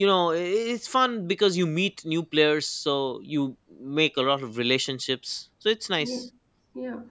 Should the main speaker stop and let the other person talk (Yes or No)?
Yes